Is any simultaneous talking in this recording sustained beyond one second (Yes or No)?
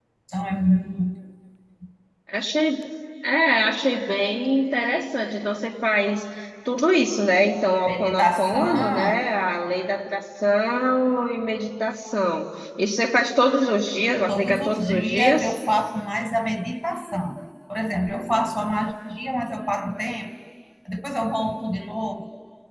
Yes